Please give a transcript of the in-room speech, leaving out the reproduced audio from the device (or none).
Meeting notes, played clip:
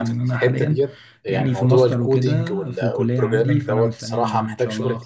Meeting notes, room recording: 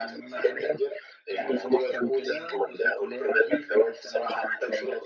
none